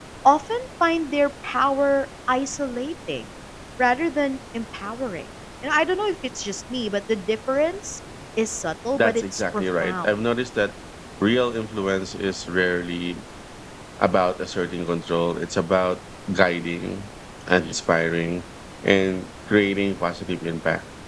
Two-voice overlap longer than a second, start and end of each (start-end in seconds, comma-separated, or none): 8.9-10.2